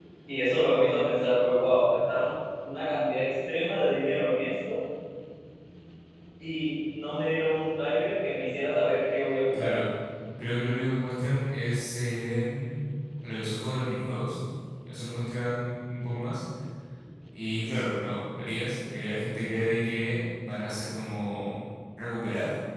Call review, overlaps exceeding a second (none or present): none